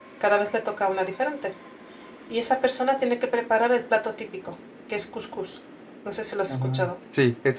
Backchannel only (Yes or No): No